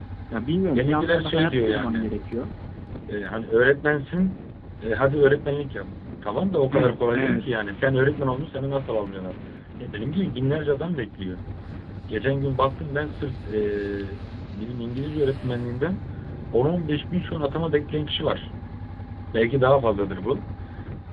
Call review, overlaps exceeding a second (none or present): present